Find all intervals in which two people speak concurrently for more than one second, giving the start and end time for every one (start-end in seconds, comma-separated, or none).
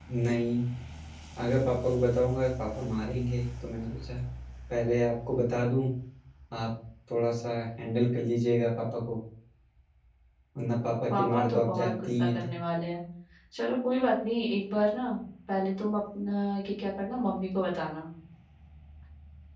11.2-12.5